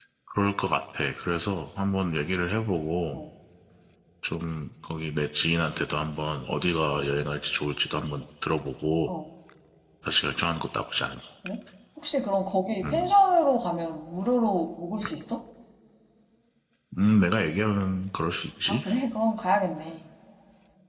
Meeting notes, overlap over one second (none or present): none